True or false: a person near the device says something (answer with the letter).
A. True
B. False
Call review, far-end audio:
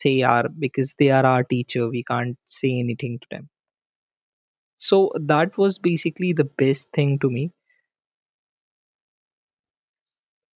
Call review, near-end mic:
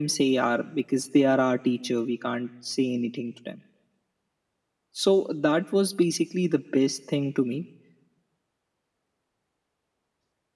B